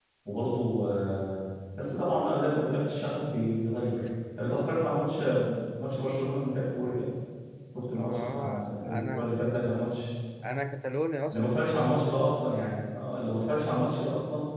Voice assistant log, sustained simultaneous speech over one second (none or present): present